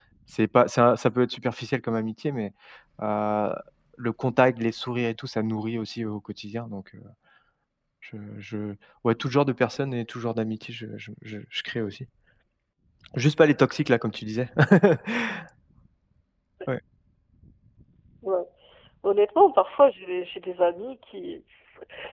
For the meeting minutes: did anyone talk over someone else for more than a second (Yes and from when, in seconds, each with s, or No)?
No